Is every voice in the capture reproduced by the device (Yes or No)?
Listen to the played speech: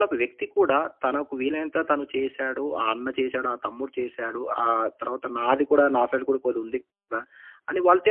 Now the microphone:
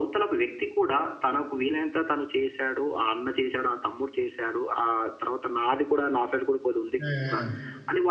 No